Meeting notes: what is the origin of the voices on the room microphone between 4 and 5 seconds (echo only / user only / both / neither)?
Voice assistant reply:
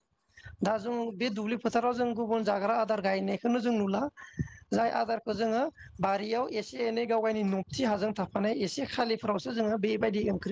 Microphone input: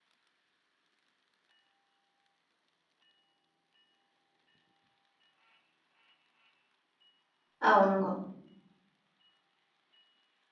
neither